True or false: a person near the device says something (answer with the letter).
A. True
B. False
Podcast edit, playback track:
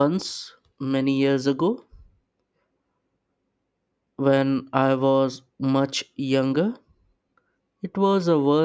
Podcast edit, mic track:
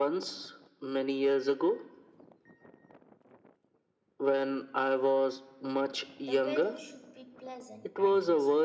A